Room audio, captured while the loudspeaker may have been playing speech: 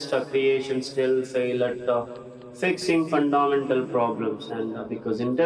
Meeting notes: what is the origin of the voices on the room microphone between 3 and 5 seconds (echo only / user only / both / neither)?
echo only